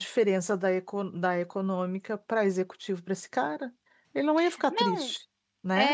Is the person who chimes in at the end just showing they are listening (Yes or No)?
No